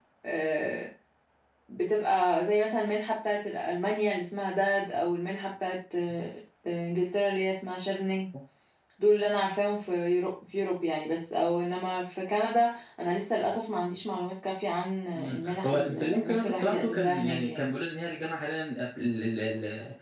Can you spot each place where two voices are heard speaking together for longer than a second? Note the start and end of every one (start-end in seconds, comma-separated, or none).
15.2-17.7